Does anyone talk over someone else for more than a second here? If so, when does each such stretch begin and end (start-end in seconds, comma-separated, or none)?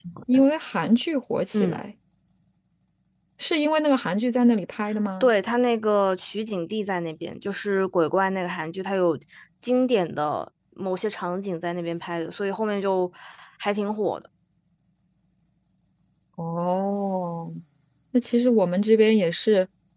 none